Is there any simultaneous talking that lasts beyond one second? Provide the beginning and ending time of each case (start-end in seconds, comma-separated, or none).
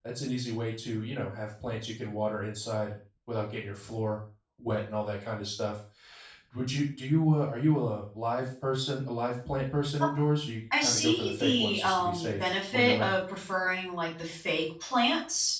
10.8-13.2